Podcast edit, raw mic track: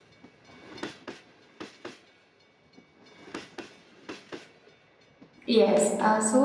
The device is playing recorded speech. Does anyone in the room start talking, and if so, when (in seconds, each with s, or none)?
5.5 s